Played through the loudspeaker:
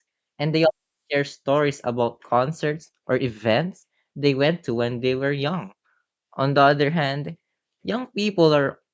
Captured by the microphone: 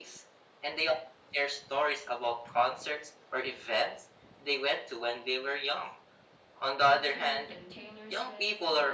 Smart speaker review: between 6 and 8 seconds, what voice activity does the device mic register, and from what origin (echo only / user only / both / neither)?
both